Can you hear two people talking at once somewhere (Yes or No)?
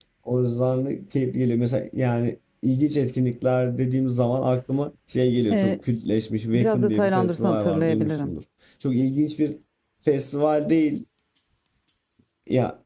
Yes